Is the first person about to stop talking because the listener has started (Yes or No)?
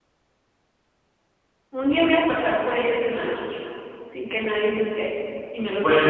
Yes